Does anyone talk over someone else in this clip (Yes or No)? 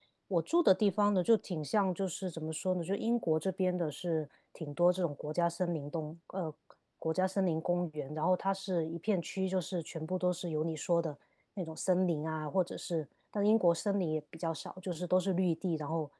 No